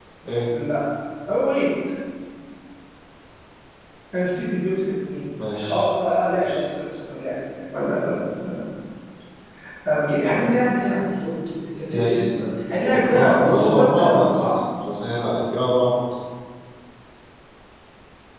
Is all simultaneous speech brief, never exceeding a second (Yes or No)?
No